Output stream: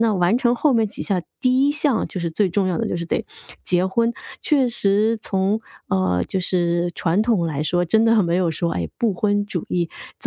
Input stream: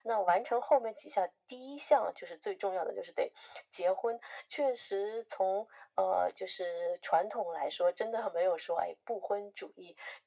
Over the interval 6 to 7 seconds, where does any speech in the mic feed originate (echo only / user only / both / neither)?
echo only